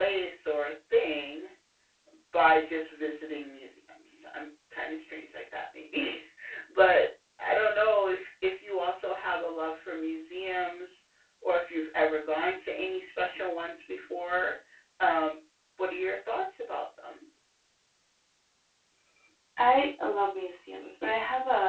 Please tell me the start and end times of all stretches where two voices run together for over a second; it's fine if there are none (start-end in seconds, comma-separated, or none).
none